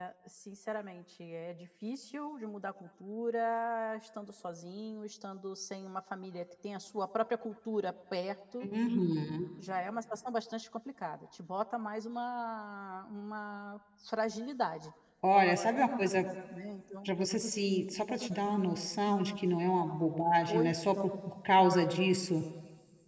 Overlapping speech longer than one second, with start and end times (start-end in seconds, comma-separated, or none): none